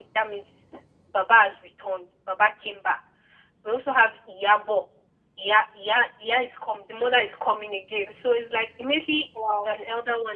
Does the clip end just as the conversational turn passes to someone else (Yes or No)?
No